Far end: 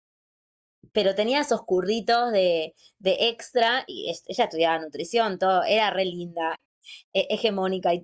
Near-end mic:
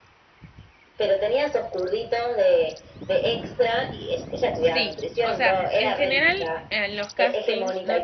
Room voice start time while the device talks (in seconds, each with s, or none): 4.6 s